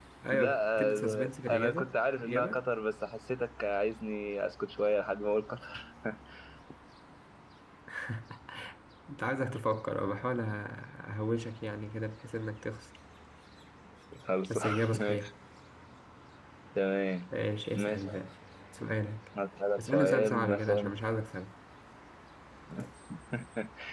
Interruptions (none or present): present